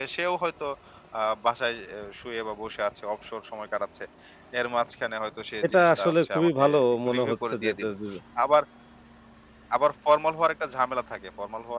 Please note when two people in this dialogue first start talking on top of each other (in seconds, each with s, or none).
5.6 s